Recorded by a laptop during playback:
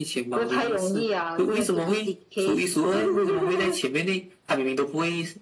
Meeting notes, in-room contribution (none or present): none